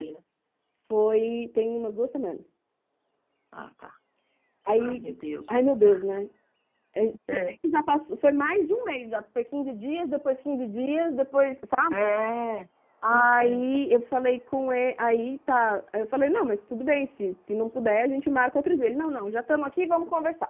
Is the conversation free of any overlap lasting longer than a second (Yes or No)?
Yes